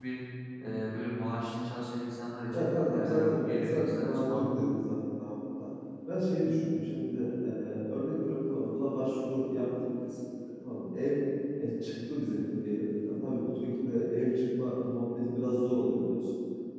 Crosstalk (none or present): present